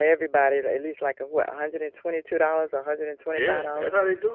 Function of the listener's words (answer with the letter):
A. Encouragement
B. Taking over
B